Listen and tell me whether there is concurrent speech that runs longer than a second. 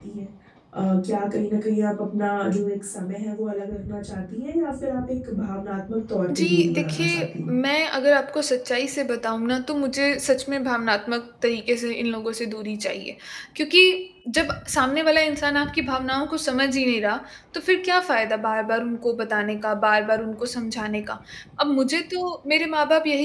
Yes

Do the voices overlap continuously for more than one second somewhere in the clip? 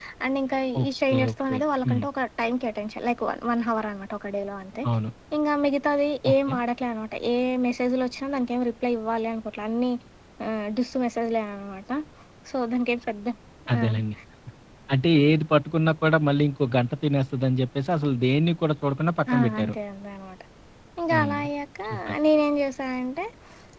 Yes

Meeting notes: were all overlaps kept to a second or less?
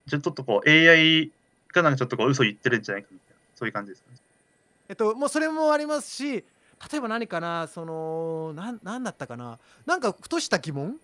Yes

